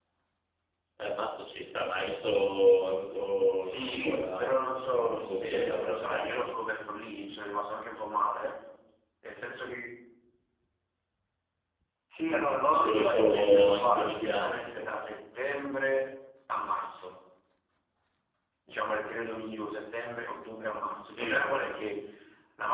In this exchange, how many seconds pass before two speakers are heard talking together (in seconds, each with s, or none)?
3.6 s